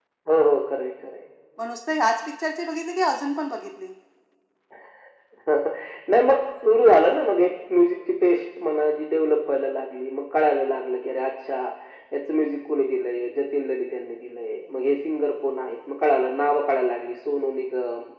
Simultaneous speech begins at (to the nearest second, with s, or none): none